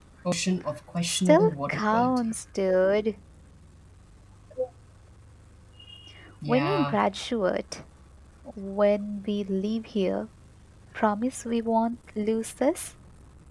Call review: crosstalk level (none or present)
present